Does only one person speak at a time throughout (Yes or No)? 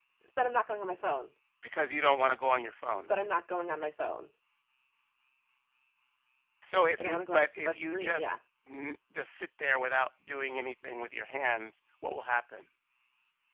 No